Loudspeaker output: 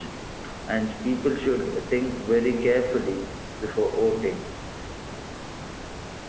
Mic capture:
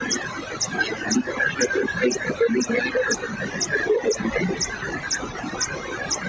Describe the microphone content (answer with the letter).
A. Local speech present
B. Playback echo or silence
B